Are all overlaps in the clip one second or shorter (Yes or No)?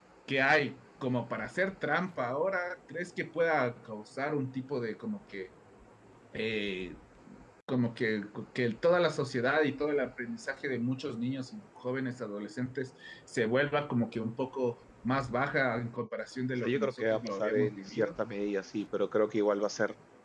No